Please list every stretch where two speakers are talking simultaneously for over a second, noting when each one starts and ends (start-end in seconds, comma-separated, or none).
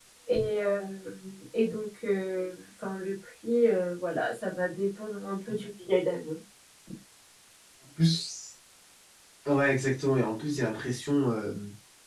none